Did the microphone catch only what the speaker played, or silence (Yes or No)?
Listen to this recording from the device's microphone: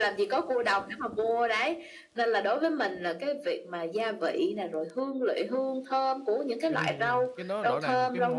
No